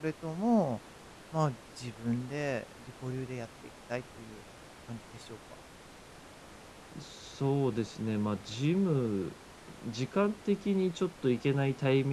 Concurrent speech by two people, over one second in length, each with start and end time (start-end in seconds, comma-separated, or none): none